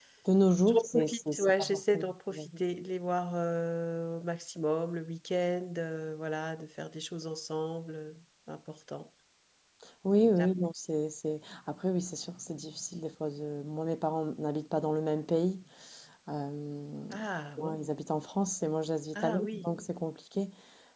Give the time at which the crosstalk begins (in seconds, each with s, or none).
0.7 s